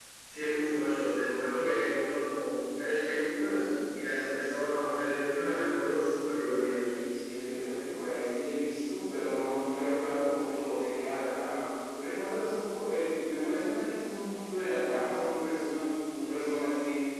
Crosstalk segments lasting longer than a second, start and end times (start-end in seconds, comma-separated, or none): none